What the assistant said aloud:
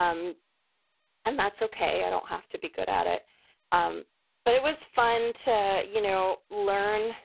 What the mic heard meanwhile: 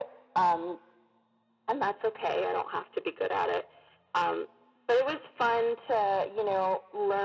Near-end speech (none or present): none